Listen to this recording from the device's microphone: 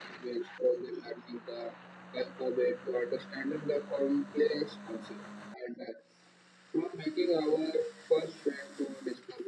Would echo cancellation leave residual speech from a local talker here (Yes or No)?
No